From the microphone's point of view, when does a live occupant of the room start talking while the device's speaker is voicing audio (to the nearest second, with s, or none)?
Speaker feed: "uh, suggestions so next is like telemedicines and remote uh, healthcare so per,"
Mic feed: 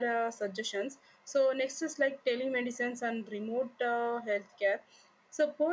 none